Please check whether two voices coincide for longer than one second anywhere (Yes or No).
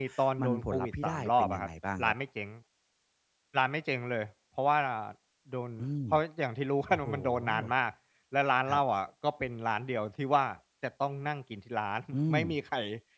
Yes